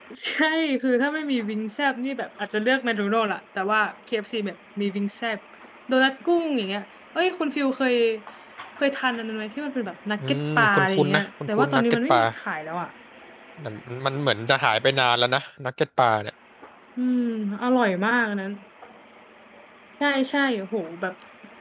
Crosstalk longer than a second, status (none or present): present